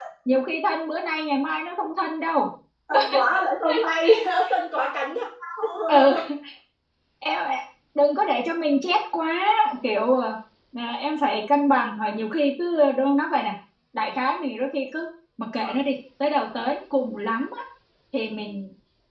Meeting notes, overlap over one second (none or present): none